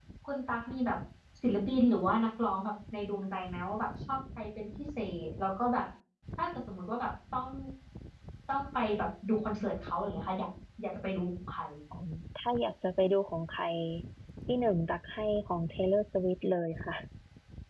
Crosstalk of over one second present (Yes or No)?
No